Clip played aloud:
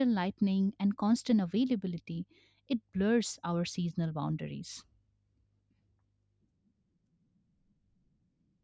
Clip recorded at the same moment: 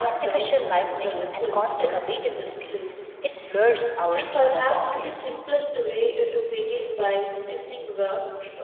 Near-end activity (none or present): present